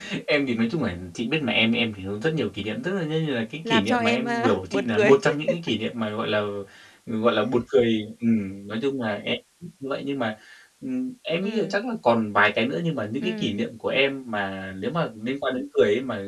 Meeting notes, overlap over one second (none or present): present